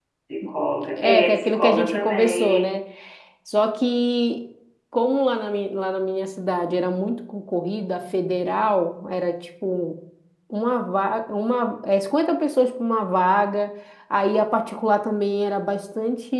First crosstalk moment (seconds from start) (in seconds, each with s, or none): 1.0 s